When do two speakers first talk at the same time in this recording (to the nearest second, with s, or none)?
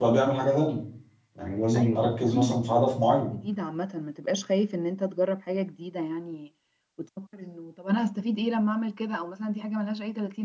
2 s